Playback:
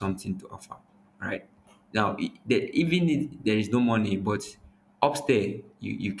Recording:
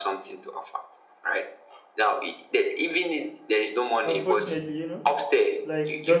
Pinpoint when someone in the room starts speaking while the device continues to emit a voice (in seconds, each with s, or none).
4.0 s